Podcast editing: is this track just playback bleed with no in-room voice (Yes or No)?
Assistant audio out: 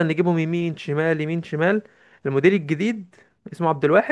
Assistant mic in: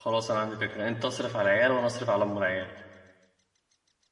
No